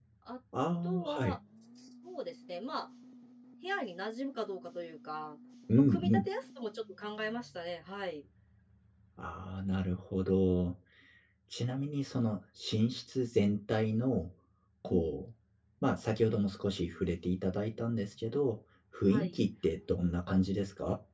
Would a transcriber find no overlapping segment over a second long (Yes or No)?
Yes